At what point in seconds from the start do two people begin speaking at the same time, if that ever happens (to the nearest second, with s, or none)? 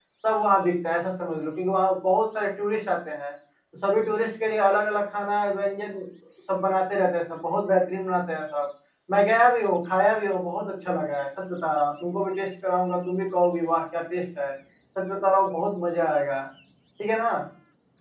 none